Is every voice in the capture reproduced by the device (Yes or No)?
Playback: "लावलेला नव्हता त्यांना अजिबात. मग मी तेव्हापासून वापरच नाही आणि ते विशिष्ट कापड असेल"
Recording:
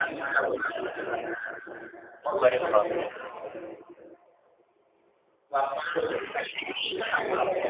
No